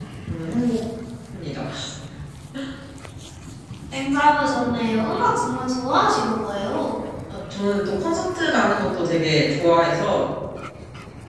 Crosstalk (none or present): none